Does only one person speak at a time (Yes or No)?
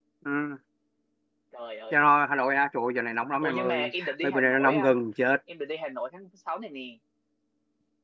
No